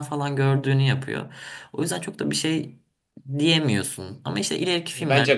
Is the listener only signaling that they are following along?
No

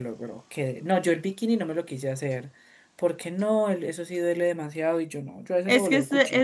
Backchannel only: No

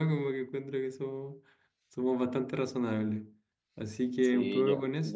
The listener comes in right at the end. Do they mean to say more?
Yes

